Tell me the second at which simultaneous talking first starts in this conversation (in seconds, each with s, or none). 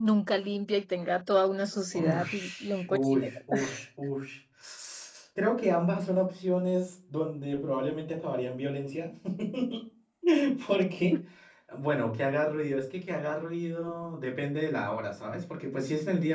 1.9 s